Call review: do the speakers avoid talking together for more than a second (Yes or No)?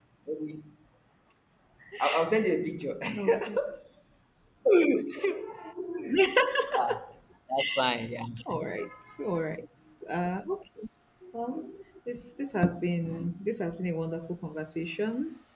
Yes